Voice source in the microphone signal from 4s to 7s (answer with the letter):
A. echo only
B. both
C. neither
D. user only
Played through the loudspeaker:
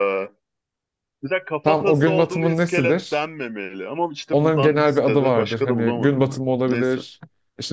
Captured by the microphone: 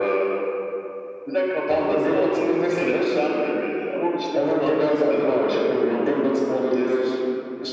A